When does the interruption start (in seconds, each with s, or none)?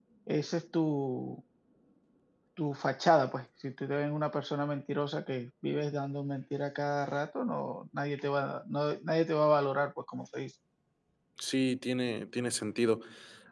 none